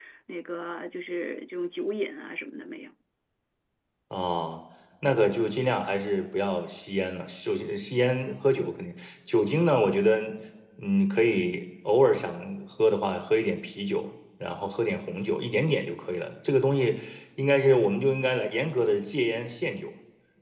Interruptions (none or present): none